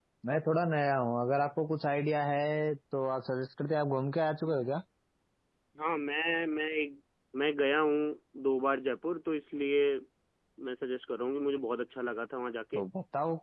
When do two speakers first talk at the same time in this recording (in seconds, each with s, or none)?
none